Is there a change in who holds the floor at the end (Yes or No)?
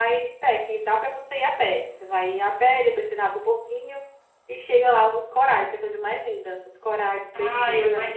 Yes